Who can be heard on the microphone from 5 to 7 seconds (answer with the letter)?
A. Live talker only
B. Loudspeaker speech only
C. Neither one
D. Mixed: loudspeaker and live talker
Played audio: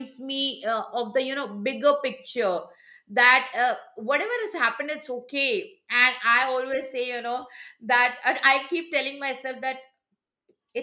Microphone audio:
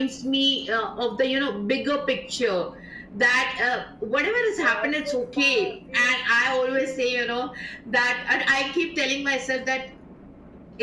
D